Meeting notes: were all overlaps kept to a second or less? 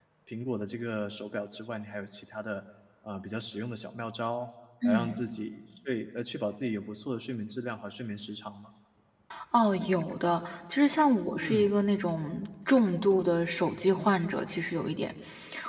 Yes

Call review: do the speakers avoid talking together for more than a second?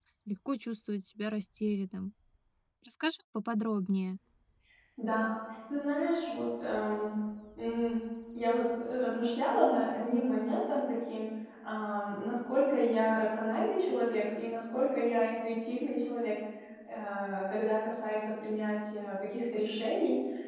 Yes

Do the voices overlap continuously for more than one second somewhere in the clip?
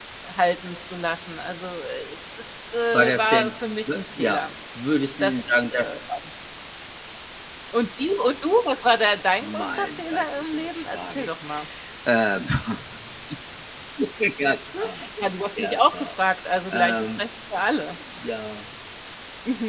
Yes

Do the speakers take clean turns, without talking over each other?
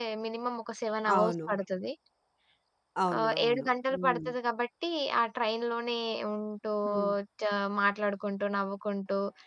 No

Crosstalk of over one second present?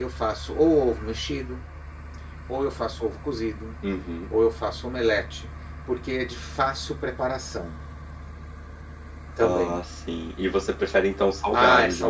No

